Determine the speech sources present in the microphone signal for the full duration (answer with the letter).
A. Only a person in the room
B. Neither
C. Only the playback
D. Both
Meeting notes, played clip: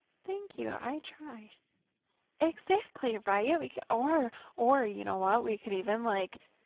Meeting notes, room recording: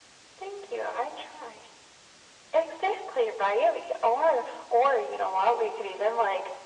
C